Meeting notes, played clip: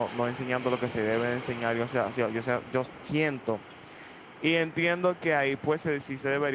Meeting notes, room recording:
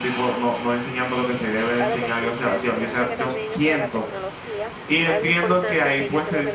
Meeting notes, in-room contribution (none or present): present